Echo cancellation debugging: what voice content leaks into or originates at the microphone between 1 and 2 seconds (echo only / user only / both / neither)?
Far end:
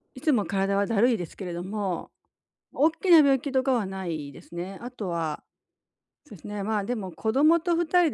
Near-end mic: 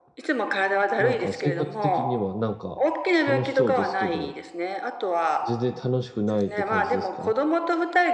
both